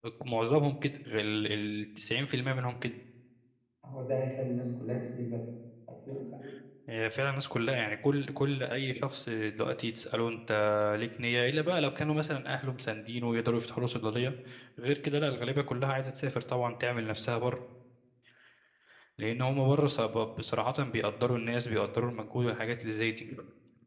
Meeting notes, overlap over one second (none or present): none